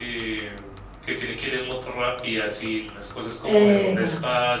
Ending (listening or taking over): listening